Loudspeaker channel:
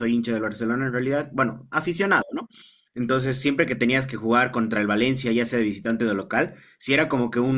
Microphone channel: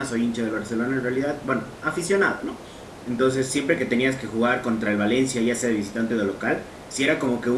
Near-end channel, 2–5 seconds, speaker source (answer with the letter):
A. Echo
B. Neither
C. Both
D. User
A